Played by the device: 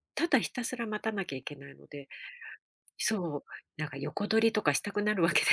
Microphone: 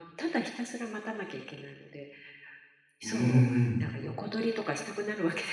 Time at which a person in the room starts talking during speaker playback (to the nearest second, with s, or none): 3 s